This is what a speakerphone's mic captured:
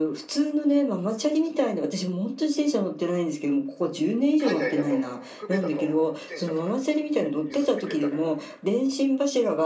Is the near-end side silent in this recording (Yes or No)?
No